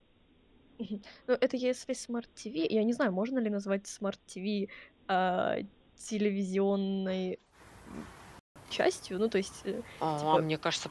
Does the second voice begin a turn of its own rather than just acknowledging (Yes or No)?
Yes